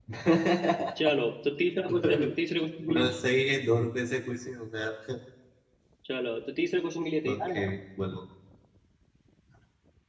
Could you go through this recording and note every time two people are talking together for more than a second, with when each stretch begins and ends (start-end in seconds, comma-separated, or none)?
none